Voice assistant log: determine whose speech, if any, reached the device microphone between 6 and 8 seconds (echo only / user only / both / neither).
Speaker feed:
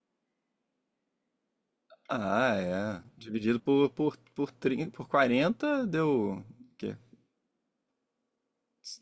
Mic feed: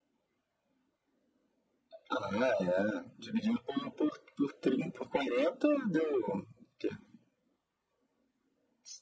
echo only